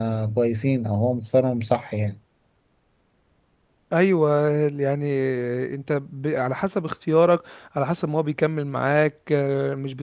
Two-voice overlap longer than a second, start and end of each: none

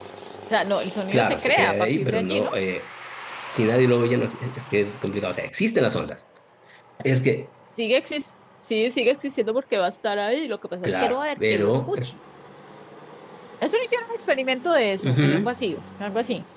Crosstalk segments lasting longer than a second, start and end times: 1.1-2.5, 10.8-12.1

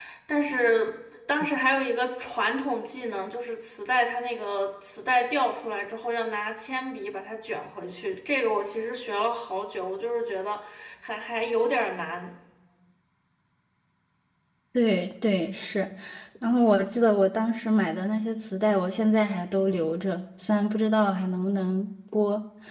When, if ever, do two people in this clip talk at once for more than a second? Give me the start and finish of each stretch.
none

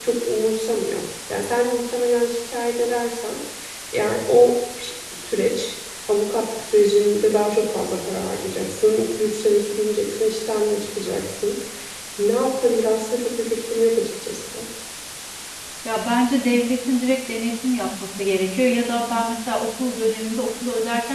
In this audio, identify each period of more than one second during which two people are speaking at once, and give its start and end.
none

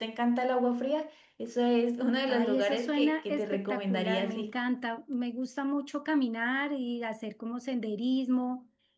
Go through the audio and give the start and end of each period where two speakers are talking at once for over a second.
2.3-4.5

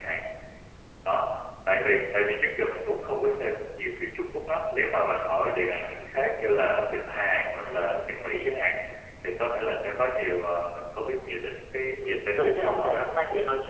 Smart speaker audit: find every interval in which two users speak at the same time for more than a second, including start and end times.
11.9-13.1

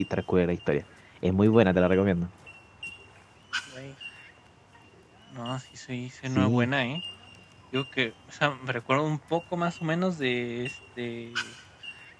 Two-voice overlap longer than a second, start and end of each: none

